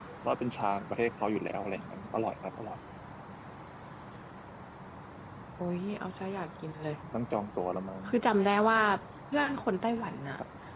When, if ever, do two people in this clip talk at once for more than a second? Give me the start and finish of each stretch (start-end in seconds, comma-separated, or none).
none